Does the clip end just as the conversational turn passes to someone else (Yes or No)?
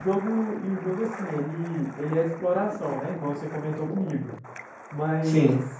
No